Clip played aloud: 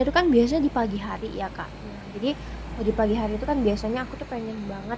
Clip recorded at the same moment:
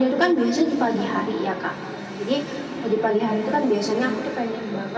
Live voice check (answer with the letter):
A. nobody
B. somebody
A